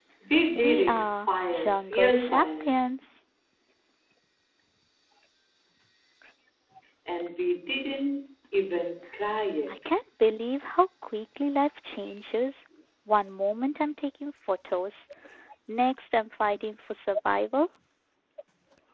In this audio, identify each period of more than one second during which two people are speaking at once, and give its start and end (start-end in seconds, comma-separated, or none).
0.6-2.7